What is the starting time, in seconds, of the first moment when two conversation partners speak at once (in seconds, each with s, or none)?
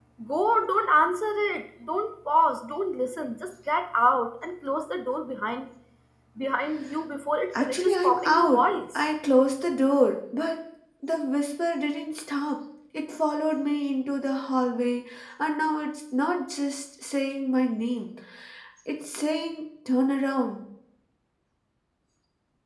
7.5 s